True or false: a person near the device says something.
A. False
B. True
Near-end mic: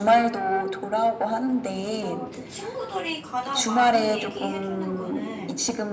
B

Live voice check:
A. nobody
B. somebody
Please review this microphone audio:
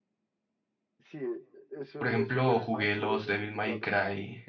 B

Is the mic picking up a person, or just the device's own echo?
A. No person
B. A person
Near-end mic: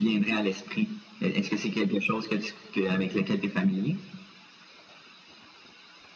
A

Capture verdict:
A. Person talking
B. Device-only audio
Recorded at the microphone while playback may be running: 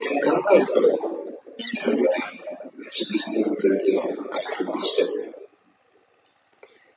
B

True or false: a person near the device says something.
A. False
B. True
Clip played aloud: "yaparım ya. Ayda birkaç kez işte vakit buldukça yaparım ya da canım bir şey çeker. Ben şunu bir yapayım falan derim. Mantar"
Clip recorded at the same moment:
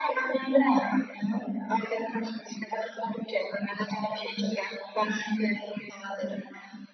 A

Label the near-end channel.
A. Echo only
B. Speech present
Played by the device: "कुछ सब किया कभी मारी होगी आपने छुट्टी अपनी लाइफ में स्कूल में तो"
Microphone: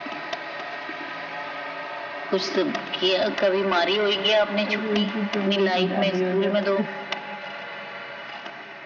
B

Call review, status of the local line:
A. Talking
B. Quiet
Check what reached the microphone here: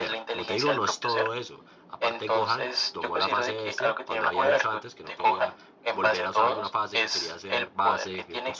A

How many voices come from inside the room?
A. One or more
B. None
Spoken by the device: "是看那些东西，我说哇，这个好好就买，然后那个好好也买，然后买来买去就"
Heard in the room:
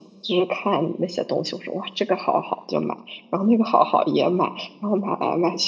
B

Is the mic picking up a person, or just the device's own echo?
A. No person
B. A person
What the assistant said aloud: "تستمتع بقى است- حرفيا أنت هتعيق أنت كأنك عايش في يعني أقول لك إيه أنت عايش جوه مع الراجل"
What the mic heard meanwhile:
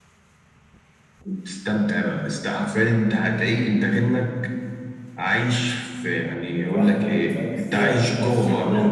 B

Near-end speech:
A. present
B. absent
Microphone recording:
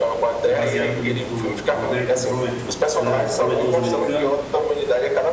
A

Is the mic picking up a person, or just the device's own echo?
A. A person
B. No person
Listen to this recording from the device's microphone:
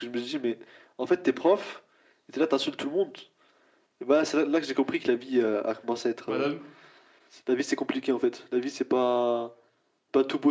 A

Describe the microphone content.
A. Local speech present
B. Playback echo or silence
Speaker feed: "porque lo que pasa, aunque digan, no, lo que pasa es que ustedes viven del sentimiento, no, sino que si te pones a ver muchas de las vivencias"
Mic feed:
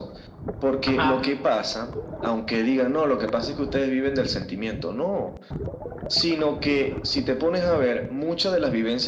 A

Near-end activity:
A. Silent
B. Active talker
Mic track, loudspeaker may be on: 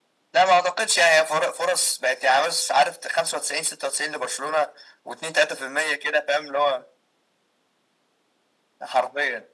A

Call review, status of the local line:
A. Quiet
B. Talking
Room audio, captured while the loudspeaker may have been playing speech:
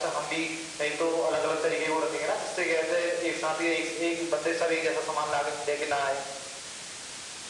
A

